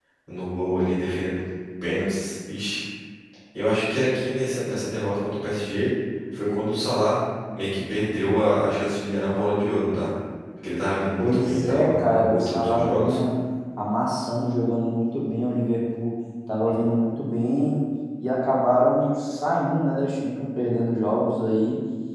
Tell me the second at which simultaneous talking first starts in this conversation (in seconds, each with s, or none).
11.2 s